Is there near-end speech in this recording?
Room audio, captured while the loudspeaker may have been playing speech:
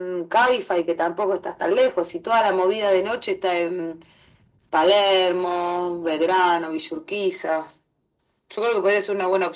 No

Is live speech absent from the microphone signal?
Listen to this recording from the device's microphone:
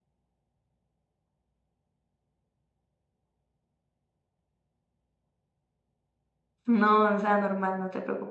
No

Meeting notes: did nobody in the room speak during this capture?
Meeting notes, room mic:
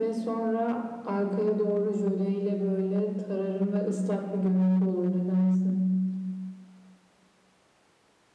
Yes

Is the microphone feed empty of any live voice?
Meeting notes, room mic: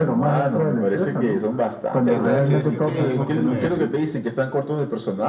No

